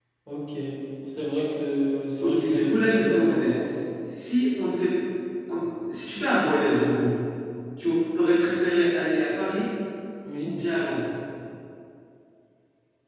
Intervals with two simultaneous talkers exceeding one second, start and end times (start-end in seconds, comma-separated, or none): 2.2-3.5